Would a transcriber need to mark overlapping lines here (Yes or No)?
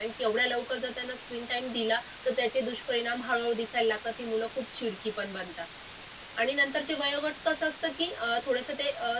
No